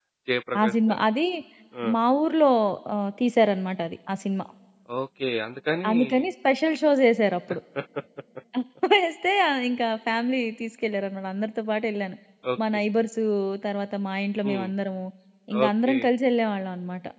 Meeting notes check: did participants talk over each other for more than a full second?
No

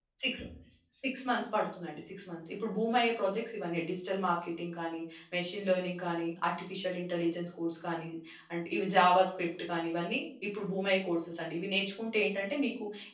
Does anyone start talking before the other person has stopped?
No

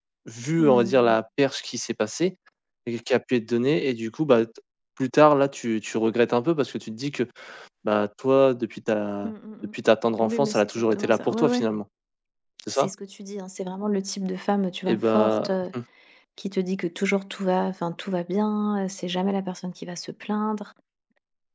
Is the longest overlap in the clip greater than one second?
Yes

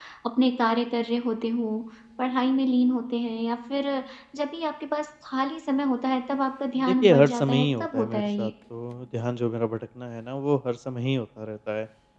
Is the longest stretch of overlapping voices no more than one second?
No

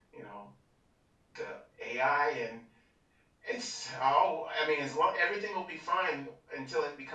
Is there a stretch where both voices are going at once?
No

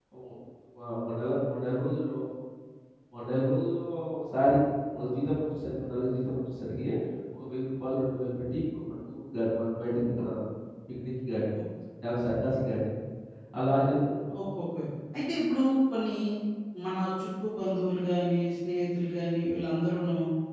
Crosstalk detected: No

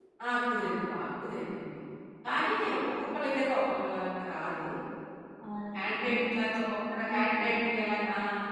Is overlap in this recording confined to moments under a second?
No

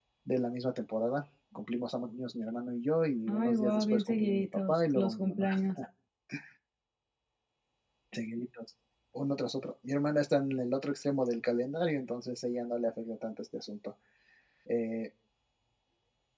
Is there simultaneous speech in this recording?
Yes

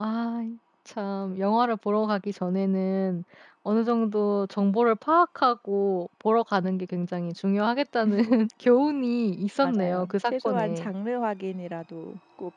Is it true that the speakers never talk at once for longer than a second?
No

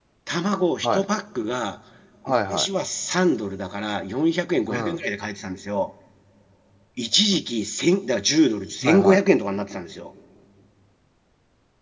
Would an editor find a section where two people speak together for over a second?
No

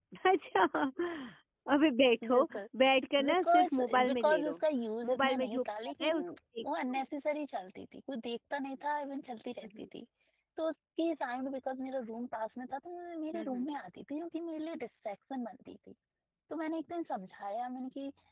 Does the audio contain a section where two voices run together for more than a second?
Yes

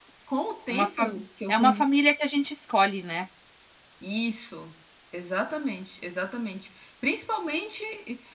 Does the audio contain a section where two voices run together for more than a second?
No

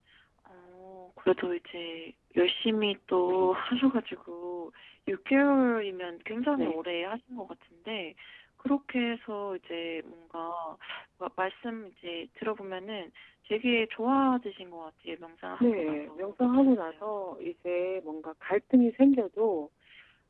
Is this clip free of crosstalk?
No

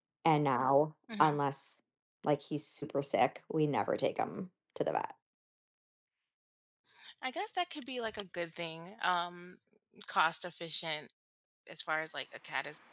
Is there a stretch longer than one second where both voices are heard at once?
No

